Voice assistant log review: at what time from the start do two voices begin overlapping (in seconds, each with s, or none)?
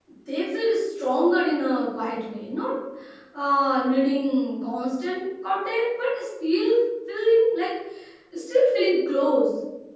none